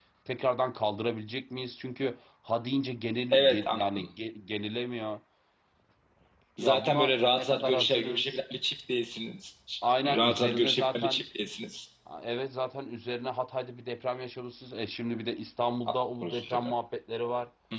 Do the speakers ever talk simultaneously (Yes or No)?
Yes